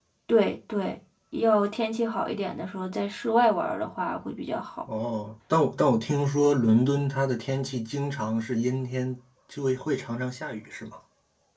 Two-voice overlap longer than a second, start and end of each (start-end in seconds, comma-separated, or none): none